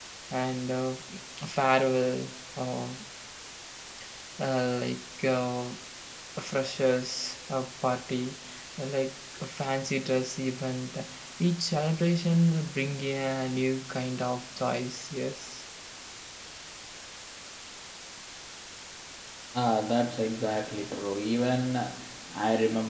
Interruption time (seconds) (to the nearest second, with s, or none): none